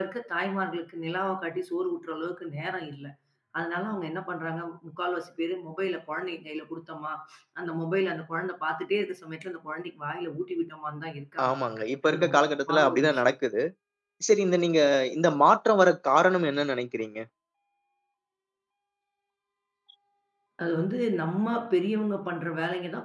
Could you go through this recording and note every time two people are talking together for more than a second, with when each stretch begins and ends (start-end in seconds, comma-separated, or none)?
12.1-13.3